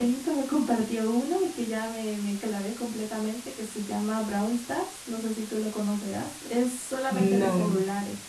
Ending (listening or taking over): listening